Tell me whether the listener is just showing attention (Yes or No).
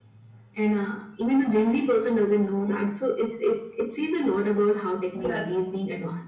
No